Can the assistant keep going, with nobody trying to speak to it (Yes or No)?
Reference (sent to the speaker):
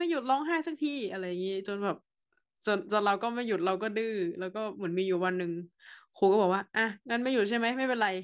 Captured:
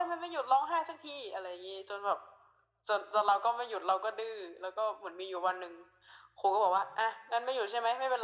Yes